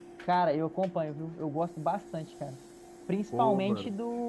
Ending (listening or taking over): listening